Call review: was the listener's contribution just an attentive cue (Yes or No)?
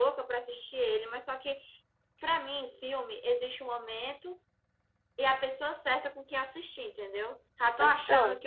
Yes